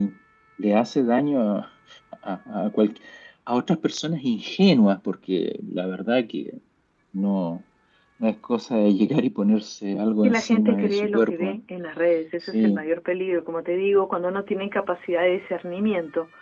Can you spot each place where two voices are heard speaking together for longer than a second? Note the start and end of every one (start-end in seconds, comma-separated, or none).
10.2-11.6